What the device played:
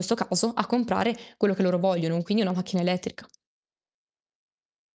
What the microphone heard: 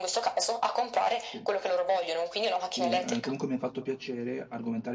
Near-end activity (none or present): present